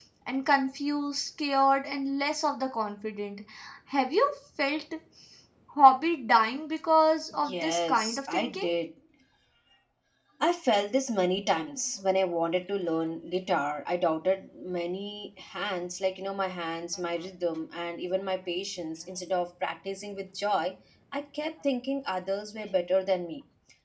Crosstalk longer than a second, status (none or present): present